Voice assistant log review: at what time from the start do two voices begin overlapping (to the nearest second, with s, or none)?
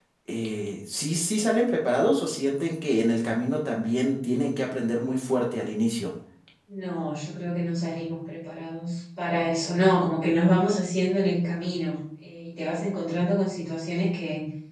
none